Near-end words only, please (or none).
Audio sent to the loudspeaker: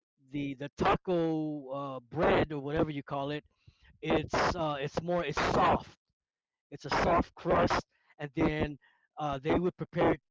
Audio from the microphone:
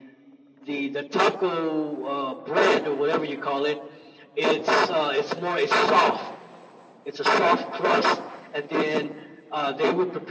none